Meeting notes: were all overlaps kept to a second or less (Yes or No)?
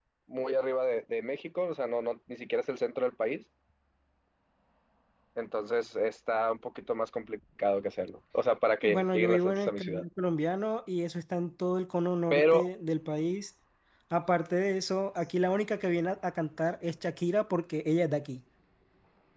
No